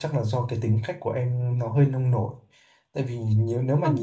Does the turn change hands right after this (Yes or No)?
No